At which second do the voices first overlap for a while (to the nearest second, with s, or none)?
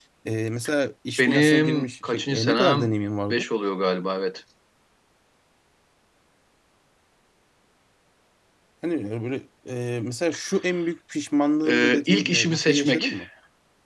1 s